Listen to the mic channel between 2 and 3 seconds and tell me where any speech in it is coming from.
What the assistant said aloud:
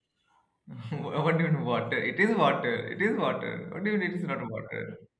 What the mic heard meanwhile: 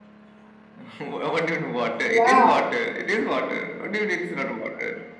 both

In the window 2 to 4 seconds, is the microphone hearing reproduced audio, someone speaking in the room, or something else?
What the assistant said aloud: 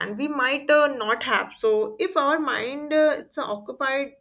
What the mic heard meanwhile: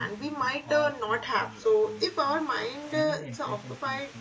both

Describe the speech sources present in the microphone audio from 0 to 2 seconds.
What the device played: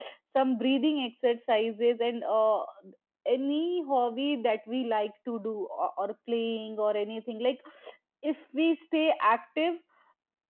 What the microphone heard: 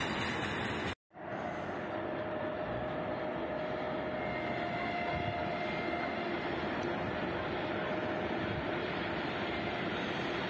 neither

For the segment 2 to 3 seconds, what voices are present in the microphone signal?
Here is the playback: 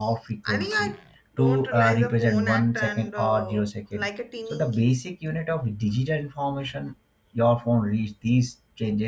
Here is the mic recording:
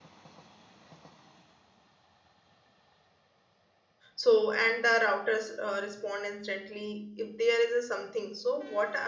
neither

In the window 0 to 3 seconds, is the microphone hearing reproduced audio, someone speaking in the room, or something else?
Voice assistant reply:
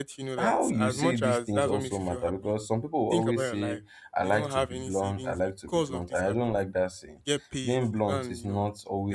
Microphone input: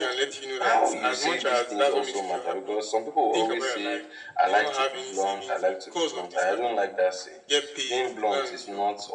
echo only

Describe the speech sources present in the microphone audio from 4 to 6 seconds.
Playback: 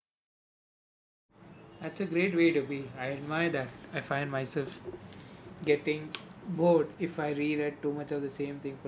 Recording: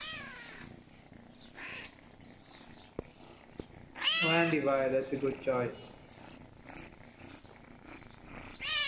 user only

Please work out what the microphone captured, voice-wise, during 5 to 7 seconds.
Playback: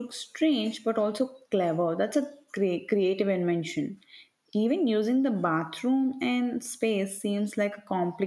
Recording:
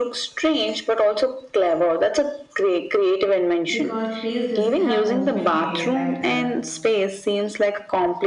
both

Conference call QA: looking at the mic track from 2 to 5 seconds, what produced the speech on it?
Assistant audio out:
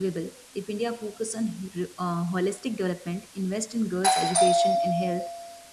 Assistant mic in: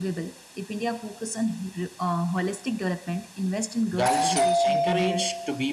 both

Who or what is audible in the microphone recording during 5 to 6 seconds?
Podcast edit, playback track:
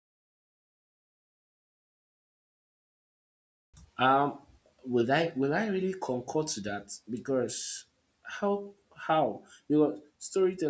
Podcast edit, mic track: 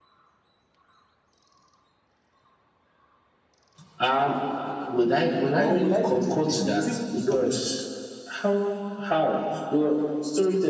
both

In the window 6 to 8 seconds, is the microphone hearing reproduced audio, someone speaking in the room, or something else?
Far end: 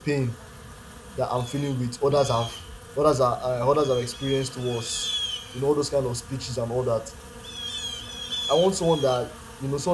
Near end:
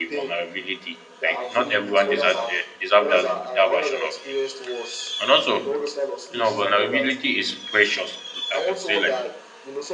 both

